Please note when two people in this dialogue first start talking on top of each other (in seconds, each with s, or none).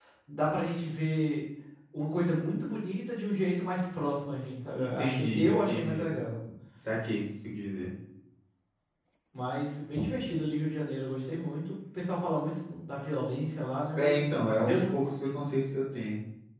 4.8 s